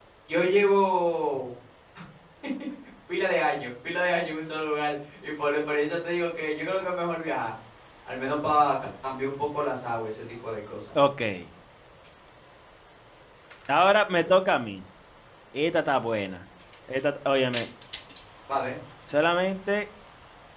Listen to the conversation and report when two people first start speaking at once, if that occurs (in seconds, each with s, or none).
none